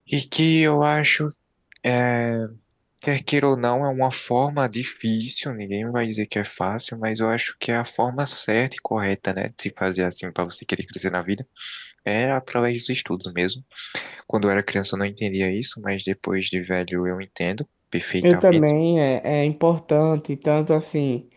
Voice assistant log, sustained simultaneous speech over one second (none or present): none